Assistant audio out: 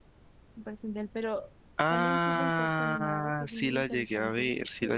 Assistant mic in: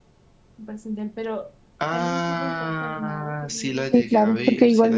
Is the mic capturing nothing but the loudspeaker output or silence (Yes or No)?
No